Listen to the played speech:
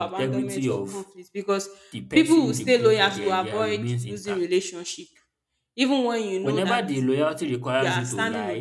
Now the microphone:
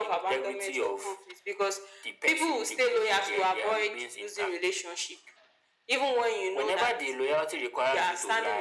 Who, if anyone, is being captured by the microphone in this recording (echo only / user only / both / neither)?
echo only